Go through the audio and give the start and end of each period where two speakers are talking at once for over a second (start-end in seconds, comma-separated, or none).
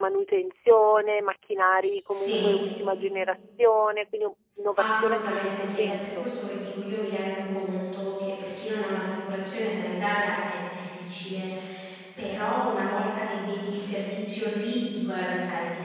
4.8-6.3